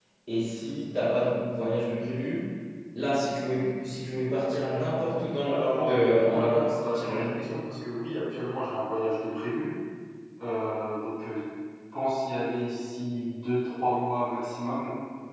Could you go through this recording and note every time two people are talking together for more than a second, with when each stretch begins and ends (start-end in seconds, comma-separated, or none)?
5.4-7.3